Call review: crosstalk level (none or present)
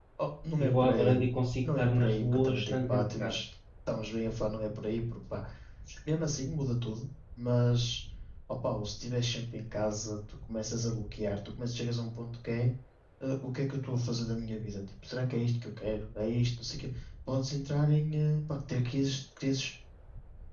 present